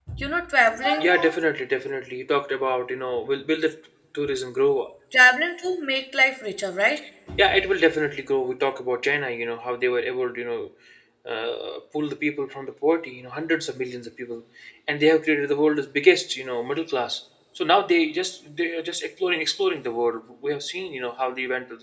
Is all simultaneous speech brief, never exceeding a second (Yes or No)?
Yes